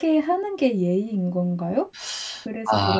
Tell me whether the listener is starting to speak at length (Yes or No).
Yes